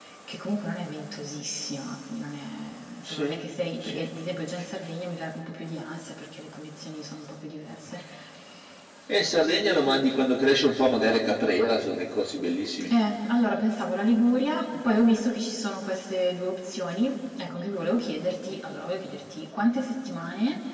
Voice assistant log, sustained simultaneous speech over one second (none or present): none